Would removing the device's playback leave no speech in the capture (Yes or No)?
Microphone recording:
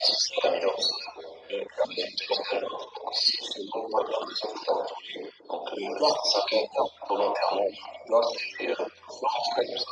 Yes